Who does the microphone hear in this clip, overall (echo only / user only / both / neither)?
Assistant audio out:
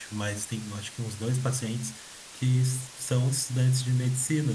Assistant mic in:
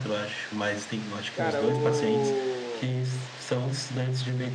both